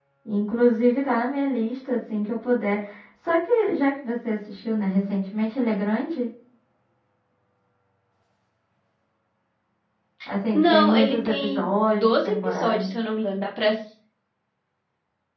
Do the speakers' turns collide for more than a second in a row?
Yes, from 10.5 s

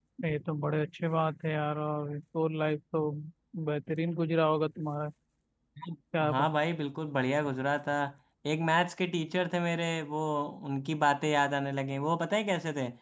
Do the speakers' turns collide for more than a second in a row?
No

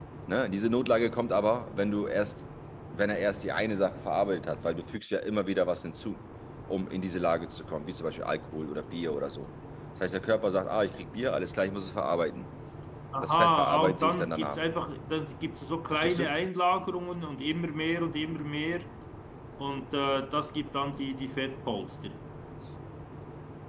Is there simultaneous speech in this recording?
Yes, from 13.2 s

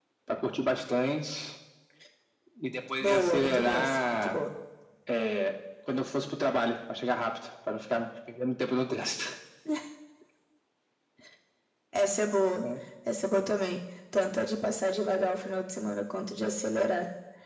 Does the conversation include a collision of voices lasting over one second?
Yes, from 3.0 s

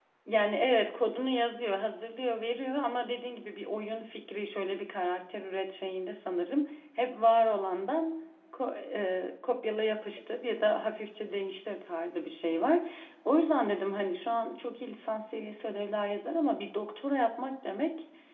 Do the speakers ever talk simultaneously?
No

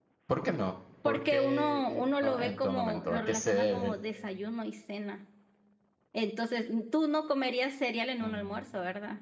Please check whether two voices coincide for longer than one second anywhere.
Yes, from 1.0 s

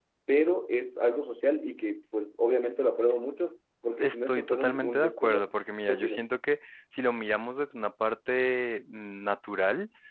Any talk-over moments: Yes, from 4.0 s

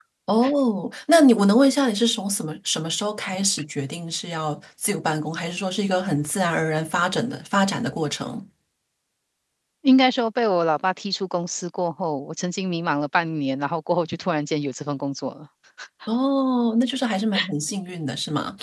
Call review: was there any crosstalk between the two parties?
No

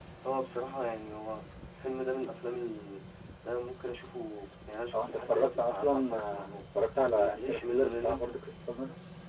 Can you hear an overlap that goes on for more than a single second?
Yes, from 4.9 s

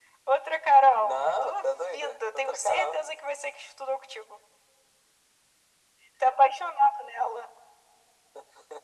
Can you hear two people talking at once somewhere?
Yes, from 1.0 s

